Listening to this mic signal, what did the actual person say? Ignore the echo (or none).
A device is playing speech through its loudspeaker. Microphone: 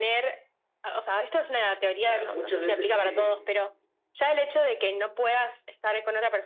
ah, muchas veces se